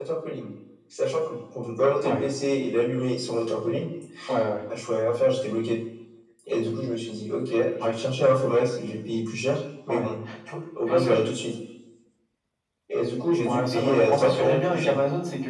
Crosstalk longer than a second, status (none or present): present